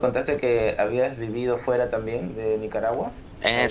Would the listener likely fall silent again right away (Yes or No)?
No